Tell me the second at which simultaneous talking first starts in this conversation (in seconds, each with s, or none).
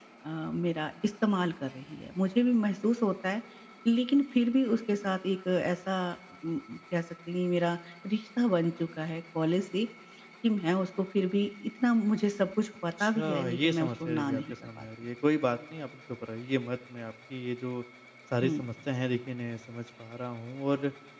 13.0 s